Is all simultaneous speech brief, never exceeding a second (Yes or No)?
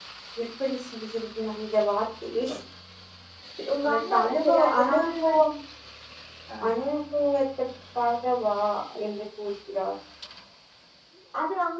No